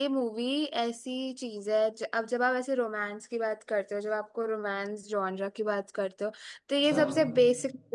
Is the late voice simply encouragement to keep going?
Yes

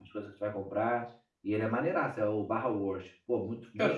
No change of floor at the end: No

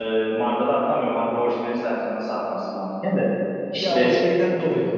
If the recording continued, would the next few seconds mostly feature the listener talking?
Yes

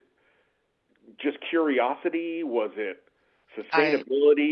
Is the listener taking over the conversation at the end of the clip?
No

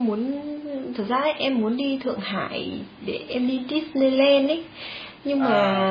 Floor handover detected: No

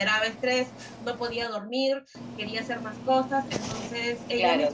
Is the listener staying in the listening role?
No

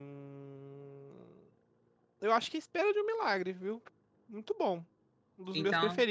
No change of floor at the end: Yes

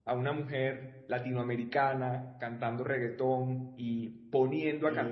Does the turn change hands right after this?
No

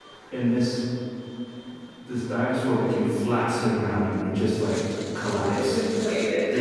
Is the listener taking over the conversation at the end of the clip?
No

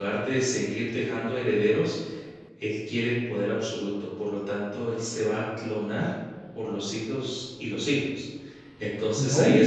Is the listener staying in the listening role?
Yes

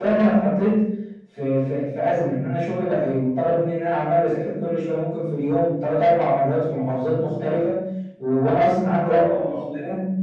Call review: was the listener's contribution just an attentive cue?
Yes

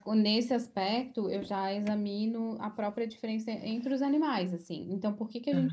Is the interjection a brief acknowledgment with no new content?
Yes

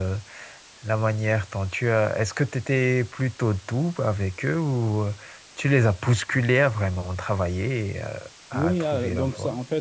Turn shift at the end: Yes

